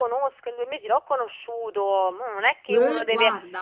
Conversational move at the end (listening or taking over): listening